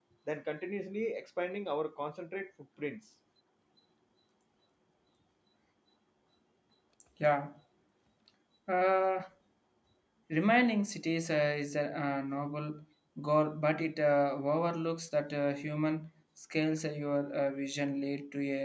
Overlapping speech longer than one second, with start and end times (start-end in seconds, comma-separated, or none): none